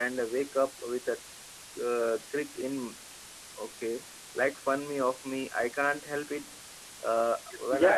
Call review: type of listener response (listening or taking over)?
taking over